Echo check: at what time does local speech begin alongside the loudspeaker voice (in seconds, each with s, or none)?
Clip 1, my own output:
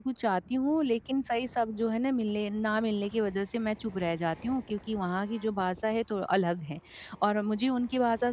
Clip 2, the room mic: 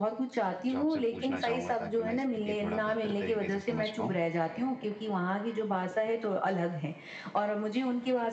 0.7 s